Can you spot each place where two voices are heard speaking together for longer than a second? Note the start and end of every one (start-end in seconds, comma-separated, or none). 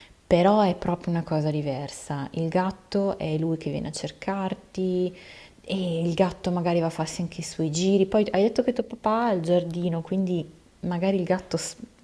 none